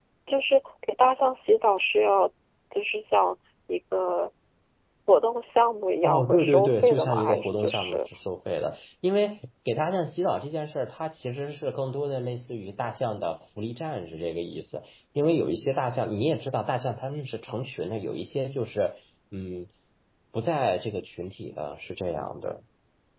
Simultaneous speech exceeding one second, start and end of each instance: 6.0-8.0

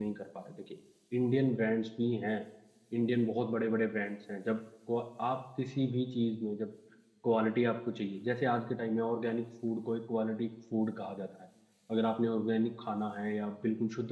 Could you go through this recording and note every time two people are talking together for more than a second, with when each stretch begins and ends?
none

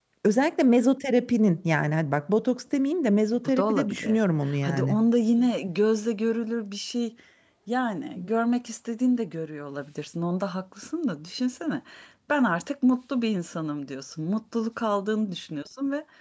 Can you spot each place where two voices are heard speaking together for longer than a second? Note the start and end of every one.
3.5-5.0

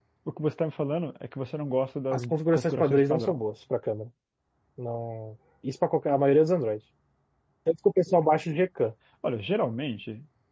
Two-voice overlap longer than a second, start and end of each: 2.1-3.4

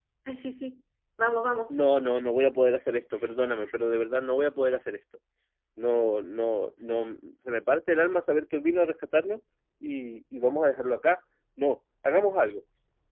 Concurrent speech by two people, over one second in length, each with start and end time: none

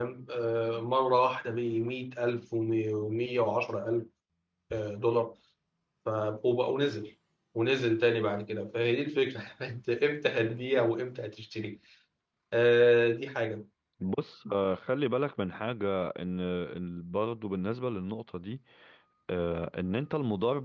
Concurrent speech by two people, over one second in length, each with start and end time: none

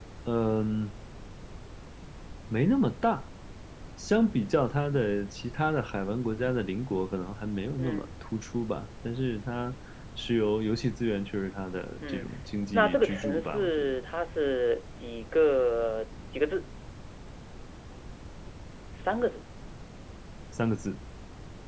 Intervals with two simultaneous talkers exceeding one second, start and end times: 12.7-13.9

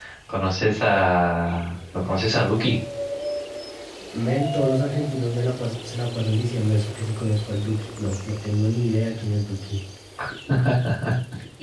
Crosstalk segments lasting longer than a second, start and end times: none

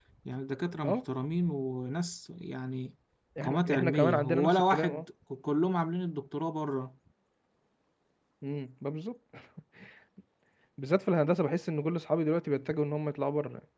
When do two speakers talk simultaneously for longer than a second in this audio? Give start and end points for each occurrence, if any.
3.4-5.0

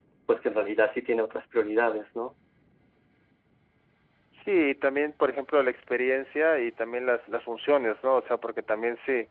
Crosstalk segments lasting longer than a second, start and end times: none

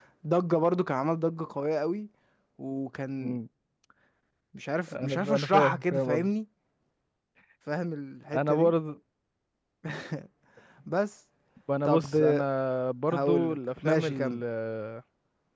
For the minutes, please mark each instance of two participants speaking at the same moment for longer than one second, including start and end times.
4.9-6.3, 13.1-14.4

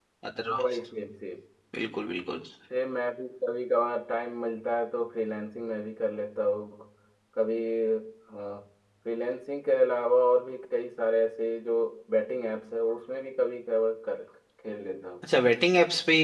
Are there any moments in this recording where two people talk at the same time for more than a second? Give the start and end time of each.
none

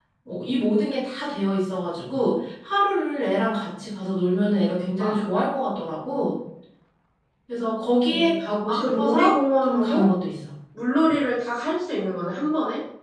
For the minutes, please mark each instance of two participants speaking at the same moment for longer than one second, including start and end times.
8.1-10.1

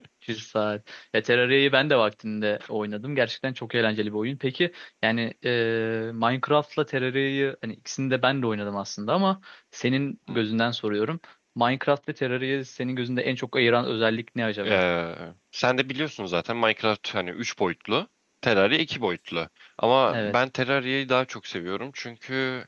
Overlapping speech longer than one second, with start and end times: none

